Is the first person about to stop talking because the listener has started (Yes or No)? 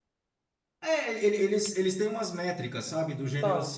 No